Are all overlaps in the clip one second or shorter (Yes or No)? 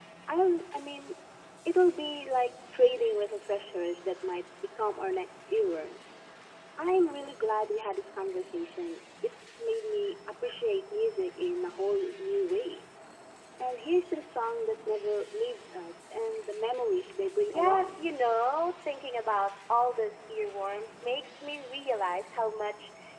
Yes